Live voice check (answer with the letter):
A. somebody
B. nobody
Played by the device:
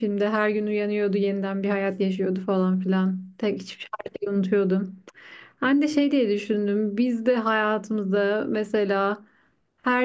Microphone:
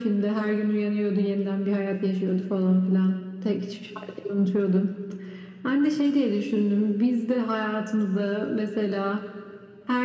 B